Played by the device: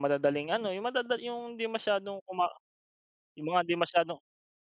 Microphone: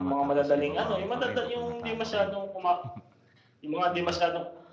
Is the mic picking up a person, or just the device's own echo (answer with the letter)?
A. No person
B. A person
B